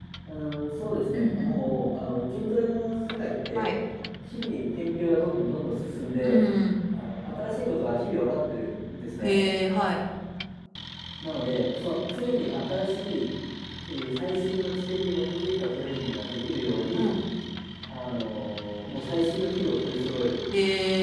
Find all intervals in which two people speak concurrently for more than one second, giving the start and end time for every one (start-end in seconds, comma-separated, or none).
none